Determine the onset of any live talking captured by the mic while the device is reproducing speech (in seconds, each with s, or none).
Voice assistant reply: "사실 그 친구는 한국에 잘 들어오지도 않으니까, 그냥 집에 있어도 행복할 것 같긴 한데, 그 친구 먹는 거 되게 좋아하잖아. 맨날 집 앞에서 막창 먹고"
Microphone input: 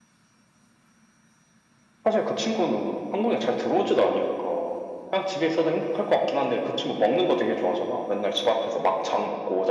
none